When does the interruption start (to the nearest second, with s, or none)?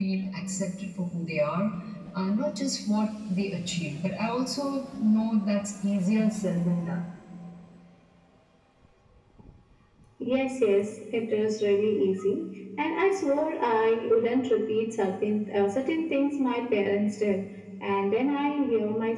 none